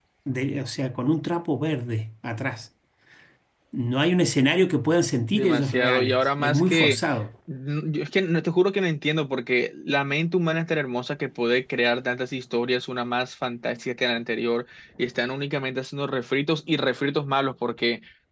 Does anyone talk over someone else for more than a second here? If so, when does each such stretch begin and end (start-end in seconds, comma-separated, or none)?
5.3-7.0